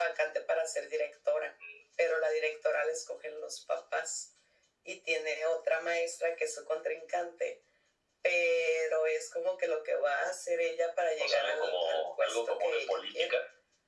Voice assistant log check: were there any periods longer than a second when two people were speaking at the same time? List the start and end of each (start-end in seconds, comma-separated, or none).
11.2-13.4